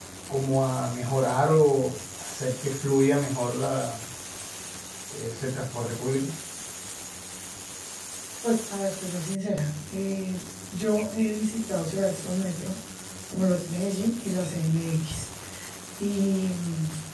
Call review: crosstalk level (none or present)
none